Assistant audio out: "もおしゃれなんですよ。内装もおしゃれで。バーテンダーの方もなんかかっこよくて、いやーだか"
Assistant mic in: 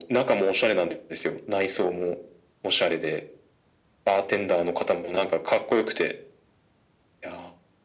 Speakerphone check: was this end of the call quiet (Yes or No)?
Yes